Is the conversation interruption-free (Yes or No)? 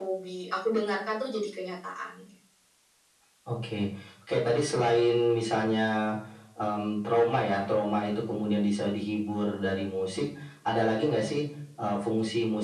Yes